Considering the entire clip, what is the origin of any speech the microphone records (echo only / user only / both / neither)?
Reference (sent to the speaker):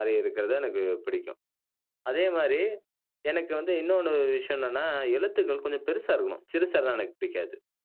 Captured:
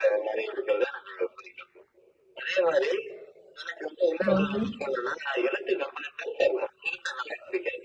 both